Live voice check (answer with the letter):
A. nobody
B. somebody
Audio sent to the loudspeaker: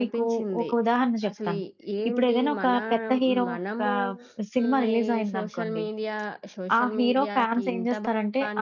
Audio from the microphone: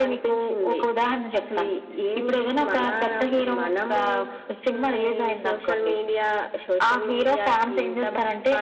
A